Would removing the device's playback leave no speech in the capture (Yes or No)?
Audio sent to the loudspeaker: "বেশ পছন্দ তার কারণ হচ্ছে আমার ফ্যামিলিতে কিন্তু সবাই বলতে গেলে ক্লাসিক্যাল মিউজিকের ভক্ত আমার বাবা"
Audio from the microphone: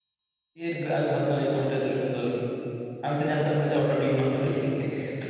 No